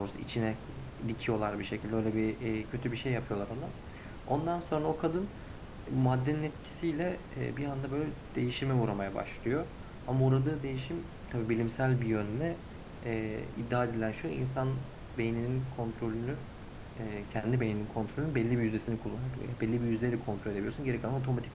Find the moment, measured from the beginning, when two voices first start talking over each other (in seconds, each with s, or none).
none